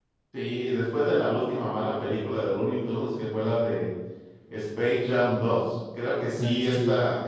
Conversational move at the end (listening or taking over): listening